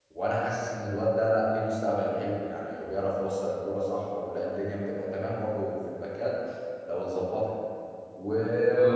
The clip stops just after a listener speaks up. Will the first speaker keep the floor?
Yes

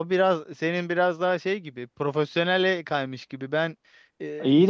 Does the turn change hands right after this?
No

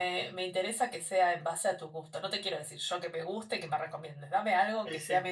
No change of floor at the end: Yes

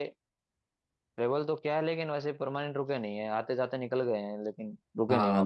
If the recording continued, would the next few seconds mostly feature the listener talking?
Yes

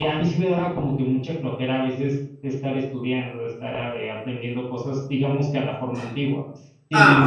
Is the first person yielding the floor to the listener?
No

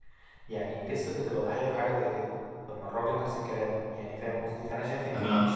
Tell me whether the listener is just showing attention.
Yes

